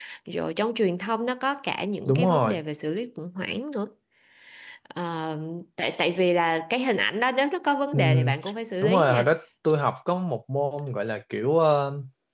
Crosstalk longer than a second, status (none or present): none